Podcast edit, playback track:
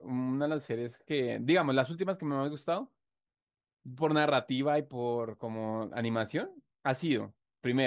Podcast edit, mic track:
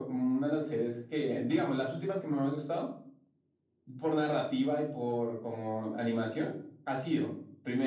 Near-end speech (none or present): none